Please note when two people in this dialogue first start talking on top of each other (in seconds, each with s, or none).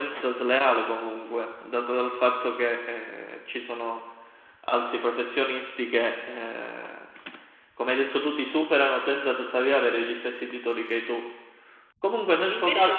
none